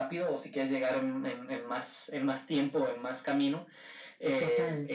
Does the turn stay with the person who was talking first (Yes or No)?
Yes